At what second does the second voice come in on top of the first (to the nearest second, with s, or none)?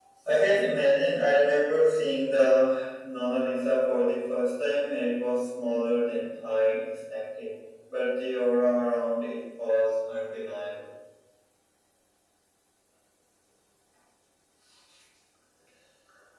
none